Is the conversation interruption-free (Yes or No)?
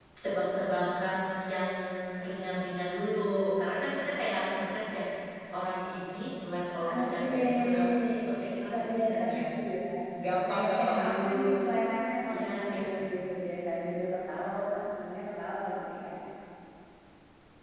No